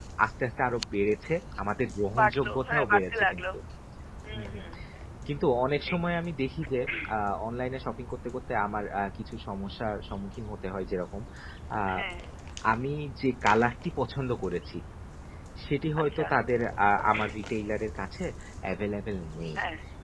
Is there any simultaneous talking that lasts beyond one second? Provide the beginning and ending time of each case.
2.2-3.4

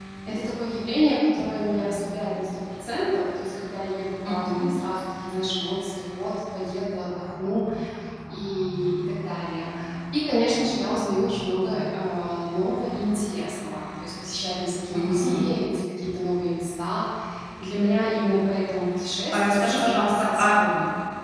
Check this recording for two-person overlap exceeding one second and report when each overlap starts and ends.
19.3-20.5

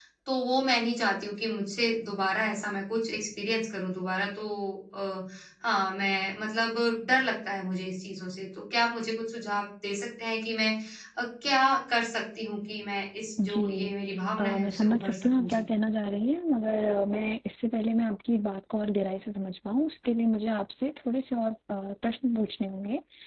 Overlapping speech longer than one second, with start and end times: 14.4-15.6

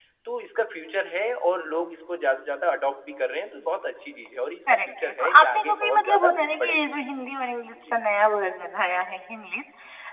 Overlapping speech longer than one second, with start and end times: 4.8-7.0

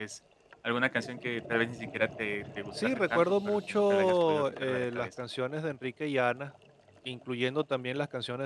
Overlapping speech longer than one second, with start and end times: 2.8-5.1

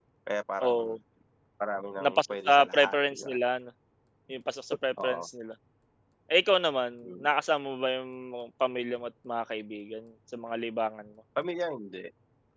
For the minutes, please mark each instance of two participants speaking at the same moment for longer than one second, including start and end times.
2.0-3.4

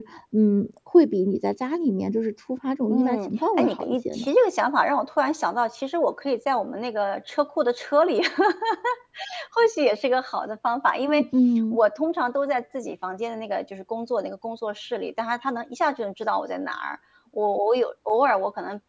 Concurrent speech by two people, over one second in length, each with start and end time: 2.9-4.3

